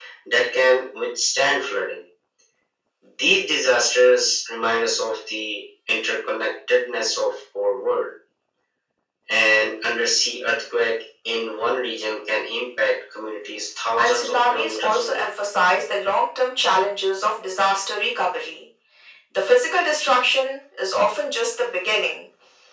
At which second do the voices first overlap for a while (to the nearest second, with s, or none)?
14 s